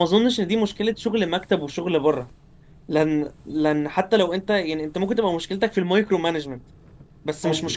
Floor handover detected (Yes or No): No